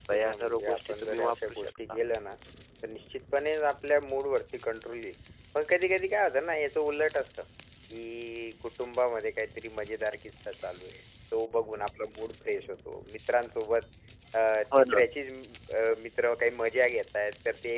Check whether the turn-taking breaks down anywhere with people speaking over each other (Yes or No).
Yes